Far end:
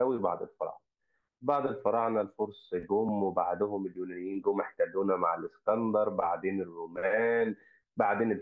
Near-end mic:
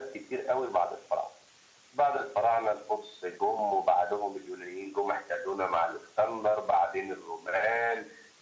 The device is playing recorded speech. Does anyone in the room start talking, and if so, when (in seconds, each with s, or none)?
none